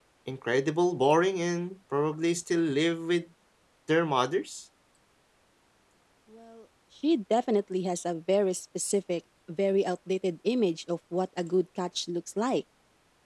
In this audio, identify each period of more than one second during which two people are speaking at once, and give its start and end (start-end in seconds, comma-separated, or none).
none